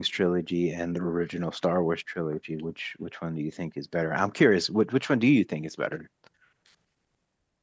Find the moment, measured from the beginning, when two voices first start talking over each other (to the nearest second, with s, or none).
none